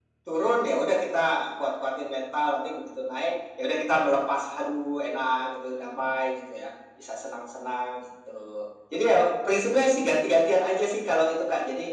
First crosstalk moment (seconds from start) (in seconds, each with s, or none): none